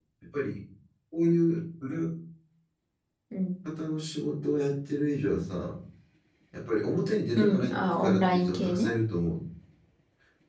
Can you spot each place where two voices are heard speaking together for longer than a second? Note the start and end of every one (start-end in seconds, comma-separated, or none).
7.4-8.9